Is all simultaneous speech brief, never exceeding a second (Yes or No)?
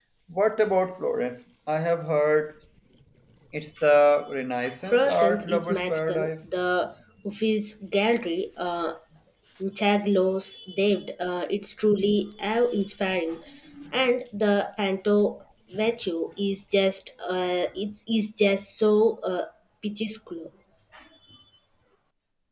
No